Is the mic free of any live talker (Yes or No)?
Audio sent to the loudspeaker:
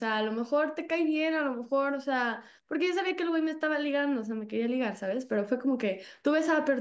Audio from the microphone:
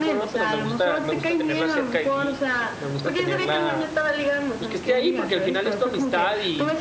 No